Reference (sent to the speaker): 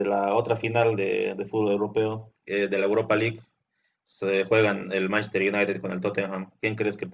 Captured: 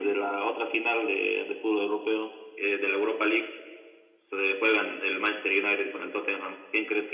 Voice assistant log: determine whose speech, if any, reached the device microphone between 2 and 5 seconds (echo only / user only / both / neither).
echo only